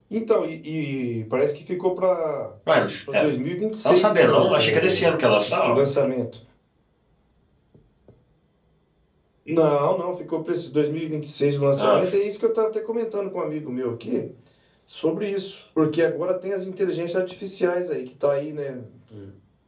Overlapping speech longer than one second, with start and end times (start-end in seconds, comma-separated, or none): 3.9-5.1